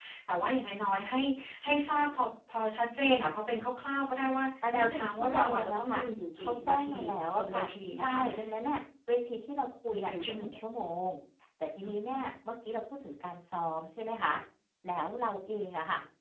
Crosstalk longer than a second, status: present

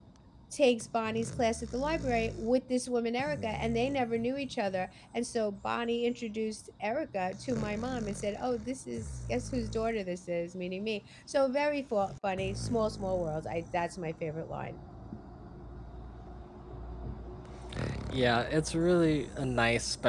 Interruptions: none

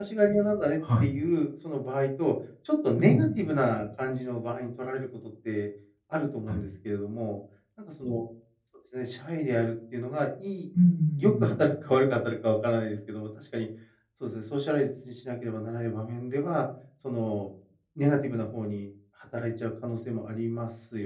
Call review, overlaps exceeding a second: none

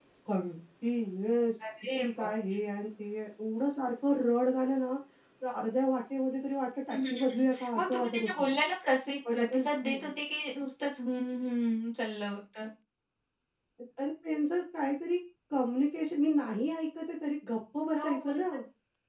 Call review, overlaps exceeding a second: present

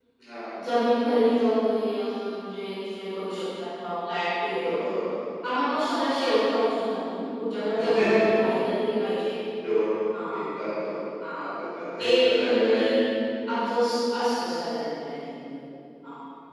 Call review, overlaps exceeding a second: present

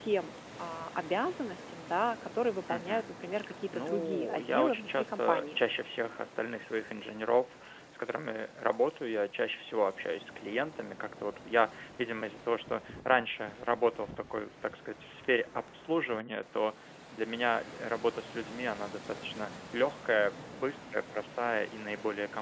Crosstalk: present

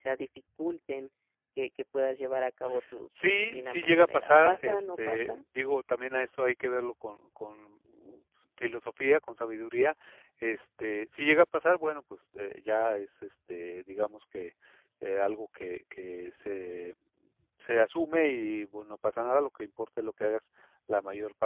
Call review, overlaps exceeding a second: present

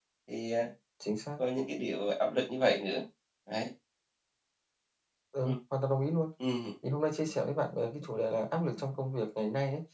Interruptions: none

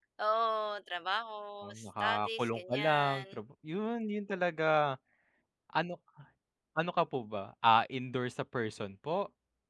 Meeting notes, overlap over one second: present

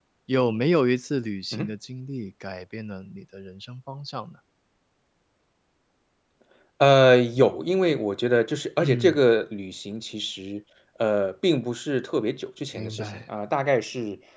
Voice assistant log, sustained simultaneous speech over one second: none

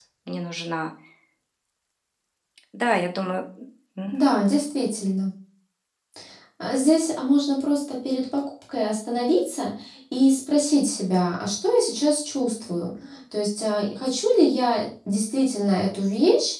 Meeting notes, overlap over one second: none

